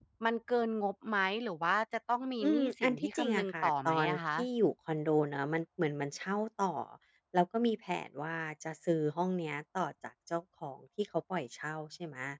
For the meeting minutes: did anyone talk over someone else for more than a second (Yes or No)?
Yes